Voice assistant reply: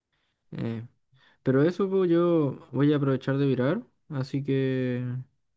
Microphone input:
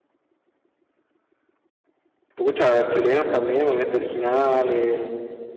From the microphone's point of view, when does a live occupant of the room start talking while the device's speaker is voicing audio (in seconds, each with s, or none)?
2.4 s